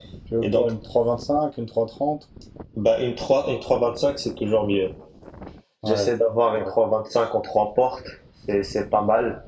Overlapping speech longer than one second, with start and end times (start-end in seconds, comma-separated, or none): none